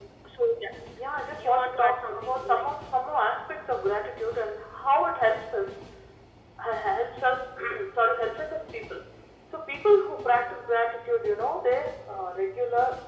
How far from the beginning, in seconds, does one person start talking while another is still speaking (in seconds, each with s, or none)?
1.4 s